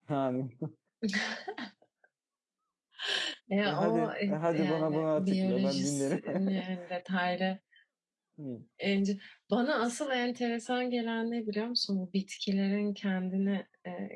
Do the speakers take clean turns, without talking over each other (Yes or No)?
No